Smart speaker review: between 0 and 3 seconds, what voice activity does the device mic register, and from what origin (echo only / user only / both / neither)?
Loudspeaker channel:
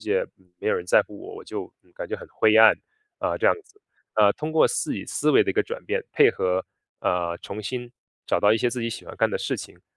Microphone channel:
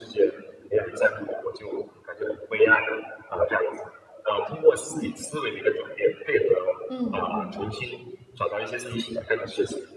echo only